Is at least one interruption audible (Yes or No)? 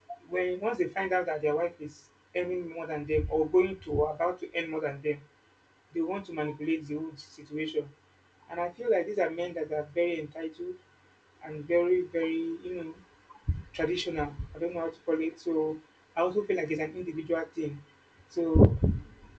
No